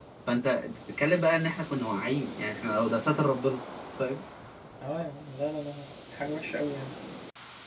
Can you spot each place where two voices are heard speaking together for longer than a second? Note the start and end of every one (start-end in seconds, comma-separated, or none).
none